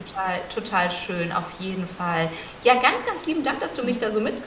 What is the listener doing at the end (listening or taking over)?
listening